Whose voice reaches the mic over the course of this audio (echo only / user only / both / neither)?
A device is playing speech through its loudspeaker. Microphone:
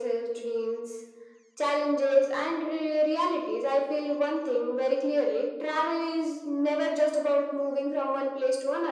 echo only